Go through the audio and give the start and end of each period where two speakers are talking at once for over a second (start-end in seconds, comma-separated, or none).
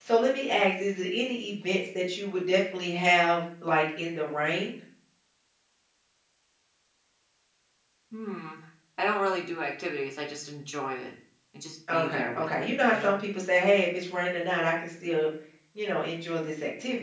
11.9-13.1